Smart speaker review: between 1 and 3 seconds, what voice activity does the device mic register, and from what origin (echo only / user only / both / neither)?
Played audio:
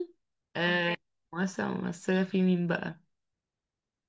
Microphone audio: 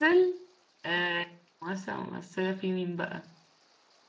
echo only